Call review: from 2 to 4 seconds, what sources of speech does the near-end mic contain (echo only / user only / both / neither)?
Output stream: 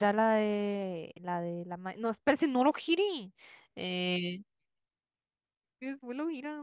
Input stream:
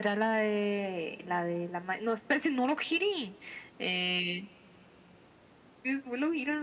echo only